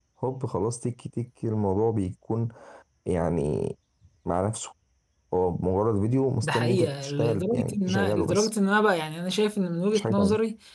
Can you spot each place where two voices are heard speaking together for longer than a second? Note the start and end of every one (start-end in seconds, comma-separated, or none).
6.4-8.5